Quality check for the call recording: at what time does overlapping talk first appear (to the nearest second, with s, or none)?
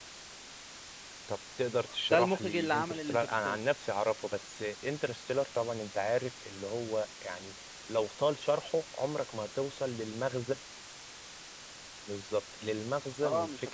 2 s